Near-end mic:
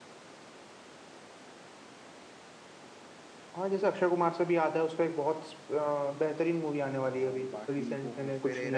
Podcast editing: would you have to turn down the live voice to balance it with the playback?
No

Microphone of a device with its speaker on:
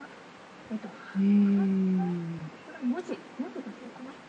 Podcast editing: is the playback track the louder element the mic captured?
No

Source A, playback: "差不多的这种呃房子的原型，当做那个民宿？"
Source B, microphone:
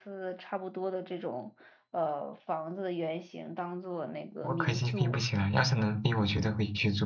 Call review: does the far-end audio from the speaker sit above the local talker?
No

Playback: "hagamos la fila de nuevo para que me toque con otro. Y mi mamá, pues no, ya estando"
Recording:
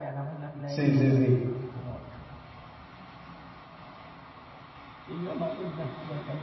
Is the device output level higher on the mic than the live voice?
No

